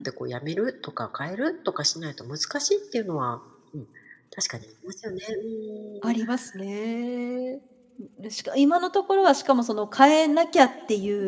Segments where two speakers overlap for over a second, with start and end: none

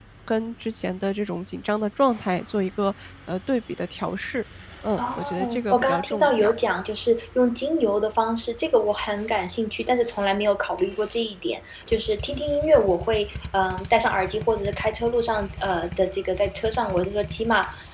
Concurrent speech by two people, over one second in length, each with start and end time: 5.0-6.5

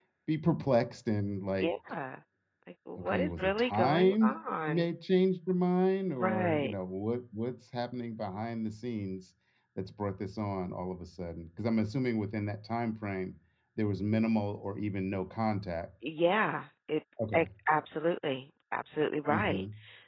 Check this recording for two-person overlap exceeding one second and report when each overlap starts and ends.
3.0-4.2

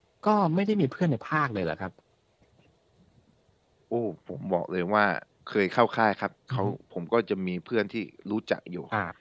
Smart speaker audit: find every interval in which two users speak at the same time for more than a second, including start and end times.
none

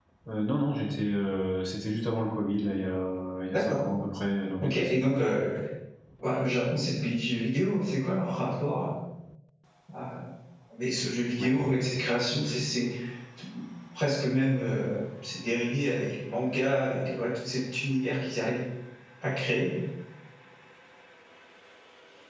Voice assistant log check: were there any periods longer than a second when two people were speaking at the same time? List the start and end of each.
none

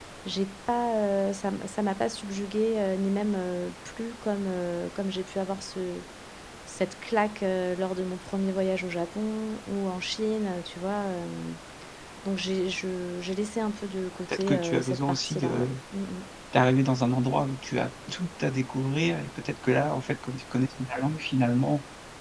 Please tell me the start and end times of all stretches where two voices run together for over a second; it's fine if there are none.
14.3-15.7

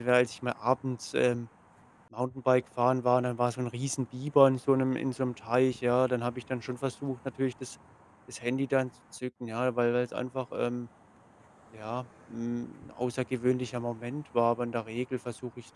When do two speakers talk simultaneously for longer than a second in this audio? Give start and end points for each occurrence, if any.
none

